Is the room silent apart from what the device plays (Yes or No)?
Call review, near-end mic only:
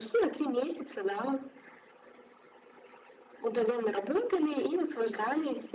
Yes